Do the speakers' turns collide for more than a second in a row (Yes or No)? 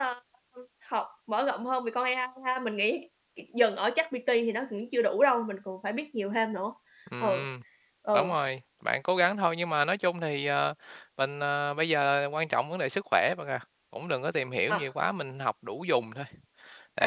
No